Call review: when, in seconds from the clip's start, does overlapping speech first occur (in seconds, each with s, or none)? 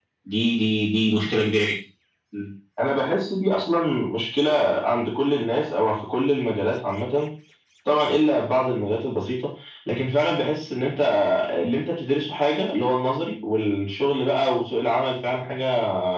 none